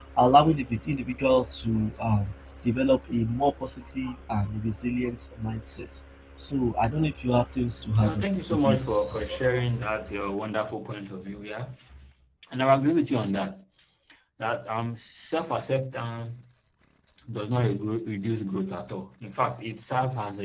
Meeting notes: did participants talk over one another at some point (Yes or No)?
Yes